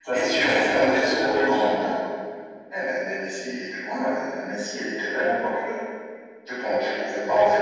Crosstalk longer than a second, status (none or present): present